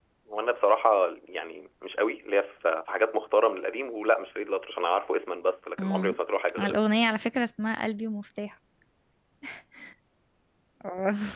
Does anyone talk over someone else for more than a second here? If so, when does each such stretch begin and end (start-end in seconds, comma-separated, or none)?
none